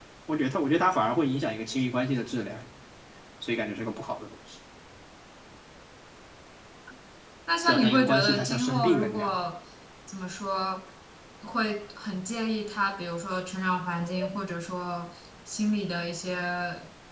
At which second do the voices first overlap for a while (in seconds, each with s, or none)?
7.7 s